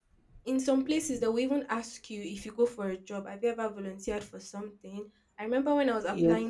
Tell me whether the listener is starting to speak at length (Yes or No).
Yes